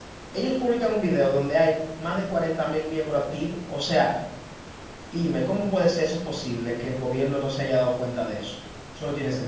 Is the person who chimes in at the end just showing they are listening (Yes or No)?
No